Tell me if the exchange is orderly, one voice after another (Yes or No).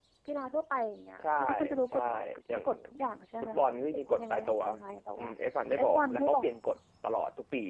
No